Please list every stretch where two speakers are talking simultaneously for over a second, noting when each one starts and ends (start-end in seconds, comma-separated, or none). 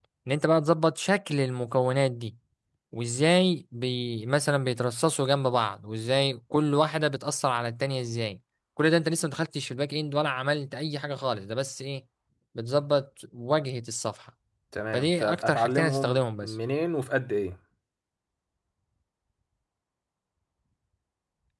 14.9-16.5